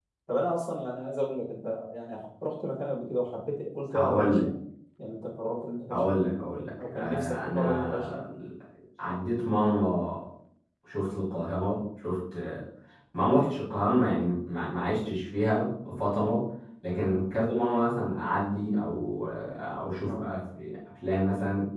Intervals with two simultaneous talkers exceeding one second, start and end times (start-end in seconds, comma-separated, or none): 6.8-8.3